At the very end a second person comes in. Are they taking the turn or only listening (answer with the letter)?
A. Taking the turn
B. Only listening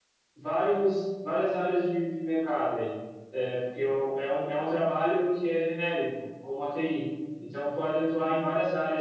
B